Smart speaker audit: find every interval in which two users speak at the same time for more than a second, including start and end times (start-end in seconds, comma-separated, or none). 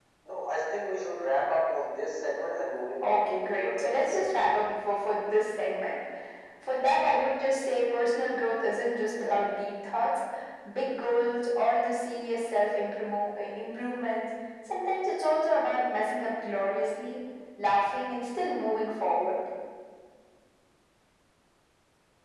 3.0-4.5